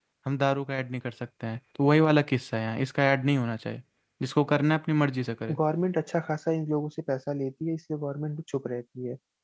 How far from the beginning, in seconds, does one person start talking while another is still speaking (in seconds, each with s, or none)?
none